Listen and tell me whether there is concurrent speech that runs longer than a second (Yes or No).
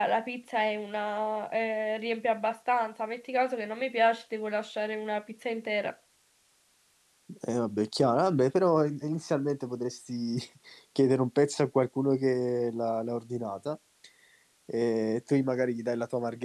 No